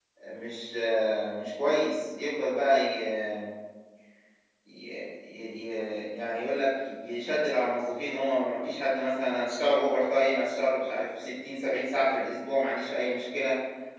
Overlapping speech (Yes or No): No